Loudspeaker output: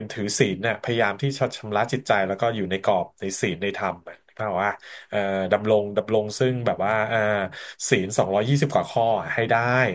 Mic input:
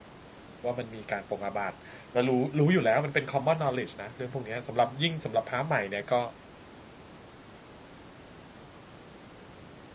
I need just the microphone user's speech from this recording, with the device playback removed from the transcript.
ว่ามันมีการปรงอาบัติแล้วรู้รู้อยู่แล้วมันเป็น common knowledge นะเรื่องพวกเนี้ยสำหรับยิ่งสำหรับพระใหม่เนี่ยก็

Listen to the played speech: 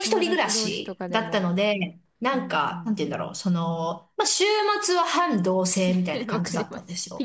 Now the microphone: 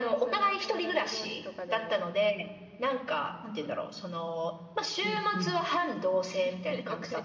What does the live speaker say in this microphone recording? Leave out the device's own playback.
うん、うん。

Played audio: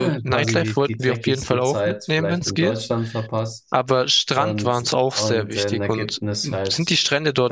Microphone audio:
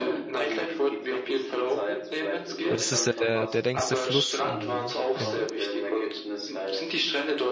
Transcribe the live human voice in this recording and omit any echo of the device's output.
weil das ist ja der, der längste Fluss im, im,

